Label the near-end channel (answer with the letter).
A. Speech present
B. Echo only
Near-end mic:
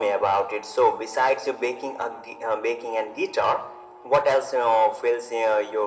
B